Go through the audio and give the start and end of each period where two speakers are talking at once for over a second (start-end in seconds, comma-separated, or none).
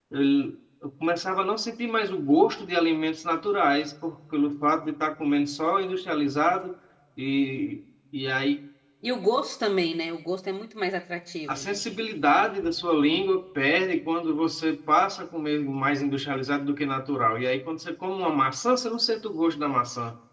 none